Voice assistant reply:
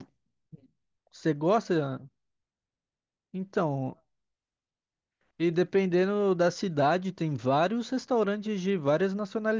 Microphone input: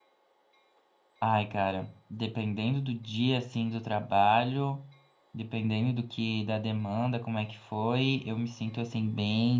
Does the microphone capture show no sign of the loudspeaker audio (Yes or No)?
Yes